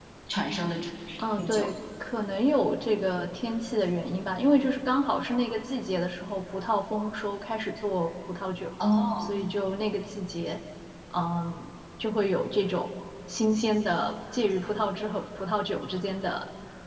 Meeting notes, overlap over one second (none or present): none